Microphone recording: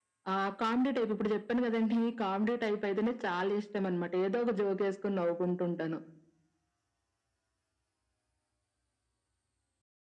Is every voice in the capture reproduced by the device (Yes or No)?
Yes